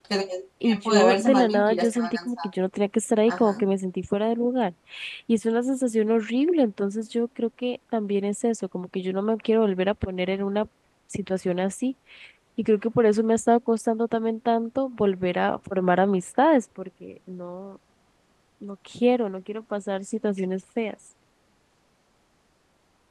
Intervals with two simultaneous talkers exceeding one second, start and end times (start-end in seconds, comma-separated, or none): 0.6-2.5